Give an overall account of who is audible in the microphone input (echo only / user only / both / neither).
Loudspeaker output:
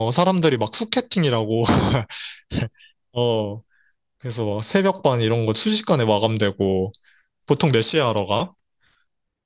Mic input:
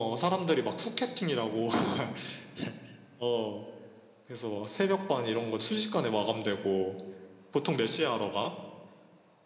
echo only